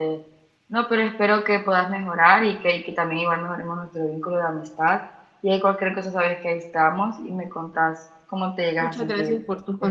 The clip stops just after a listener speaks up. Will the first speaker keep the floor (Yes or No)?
No